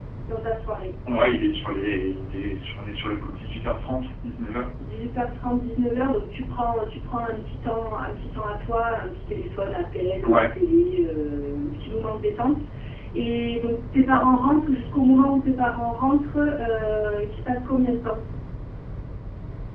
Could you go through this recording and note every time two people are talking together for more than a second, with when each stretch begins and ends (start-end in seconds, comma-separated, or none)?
none